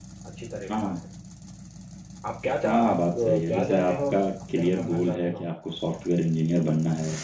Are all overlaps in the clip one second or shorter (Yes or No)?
No